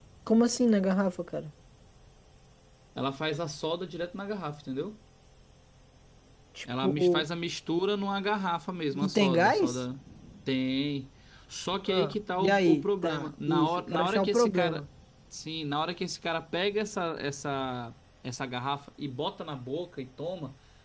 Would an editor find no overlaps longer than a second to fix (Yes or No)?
No